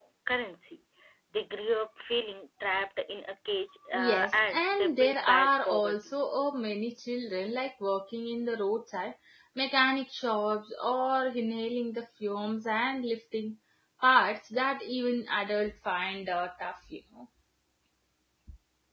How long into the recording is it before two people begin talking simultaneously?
3.9 s

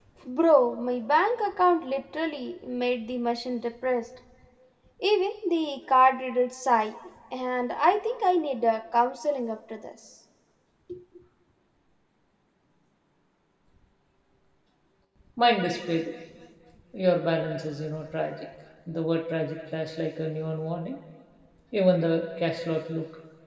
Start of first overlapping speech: none

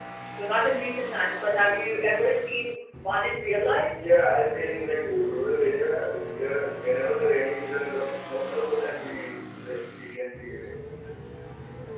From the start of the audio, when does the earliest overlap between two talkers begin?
none

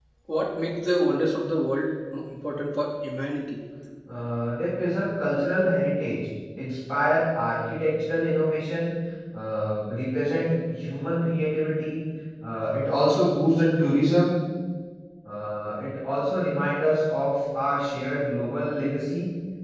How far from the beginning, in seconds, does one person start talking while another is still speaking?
none

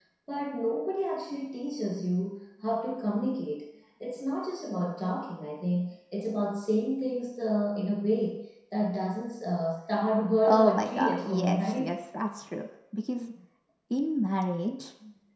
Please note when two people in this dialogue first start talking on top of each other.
10.4 s

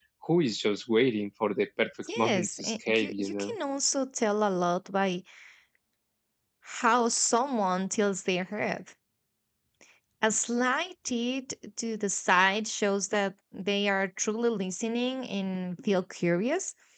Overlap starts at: 2.0 s

